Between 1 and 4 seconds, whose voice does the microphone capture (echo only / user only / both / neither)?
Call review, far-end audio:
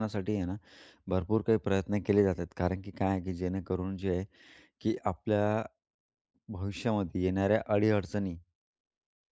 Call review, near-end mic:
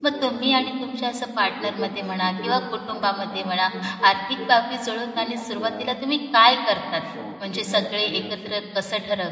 both